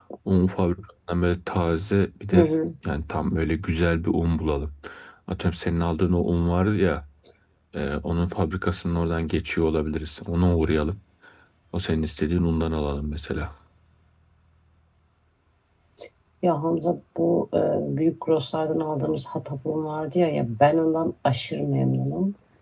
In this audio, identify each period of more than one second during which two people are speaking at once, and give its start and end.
none

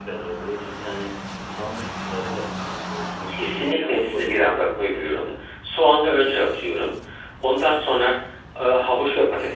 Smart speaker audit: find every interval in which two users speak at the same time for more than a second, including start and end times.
3.3-5.3

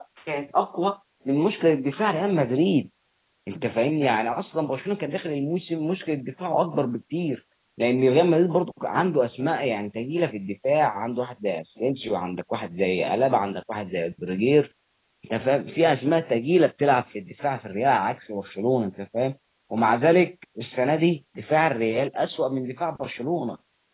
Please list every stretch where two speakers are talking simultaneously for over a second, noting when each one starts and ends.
none

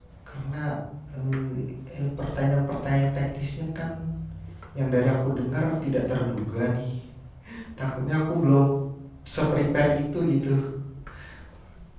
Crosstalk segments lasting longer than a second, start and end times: none

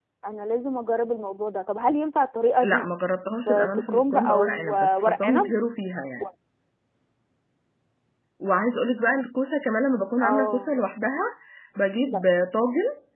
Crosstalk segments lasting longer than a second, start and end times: 3.5-5.5

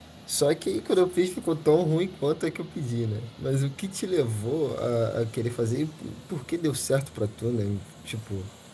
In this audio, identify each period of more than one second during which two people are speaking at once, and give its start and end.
none

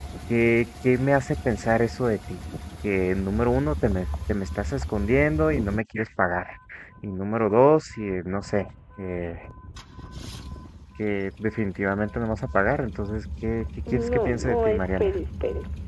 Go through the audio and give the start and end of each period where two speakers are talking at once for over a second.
13.9-15.1

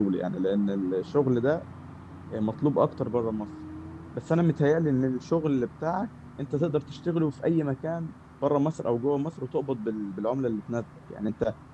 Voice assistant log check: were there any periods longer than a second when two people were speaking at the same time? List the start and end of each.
none

